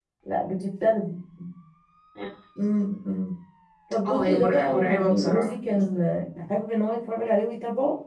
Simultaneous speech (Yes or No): Yes